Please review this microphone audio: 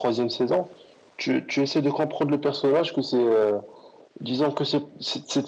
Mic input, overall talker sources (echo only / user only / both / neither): echo only